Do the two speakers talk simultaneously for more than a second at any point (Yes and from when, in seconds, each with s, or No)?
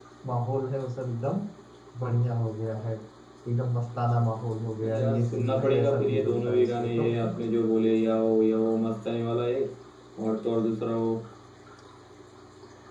Yes, from 4.8 s